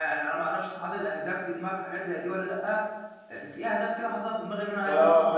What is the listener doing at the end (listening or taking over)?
taking over